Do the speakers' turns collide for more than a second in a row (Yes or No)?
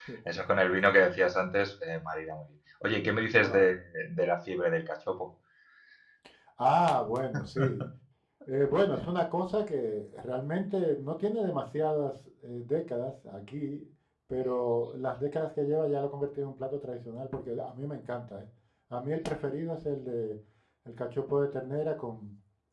No